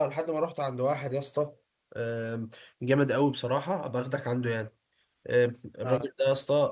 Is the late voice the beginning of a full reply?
No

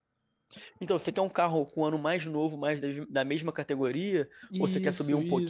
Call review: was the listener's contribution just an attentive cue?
No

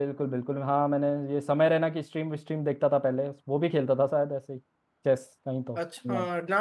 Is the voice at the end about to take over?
Yes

